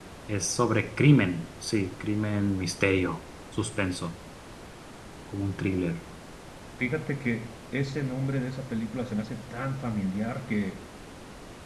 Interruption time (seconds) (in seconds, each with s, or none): none